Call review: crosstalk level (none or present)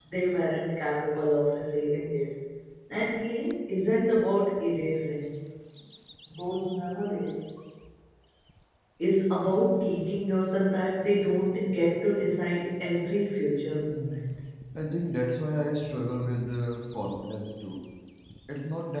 none